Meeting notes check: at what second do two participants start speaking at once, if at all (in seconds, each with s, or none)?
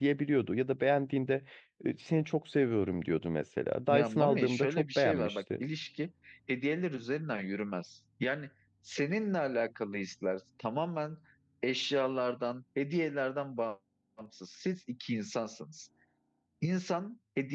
3.9 s